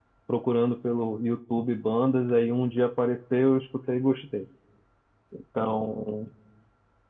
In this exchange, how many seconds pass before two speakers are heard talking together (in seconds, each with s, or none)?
none